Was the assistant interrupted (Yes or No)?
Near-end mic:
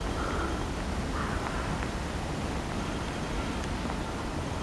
No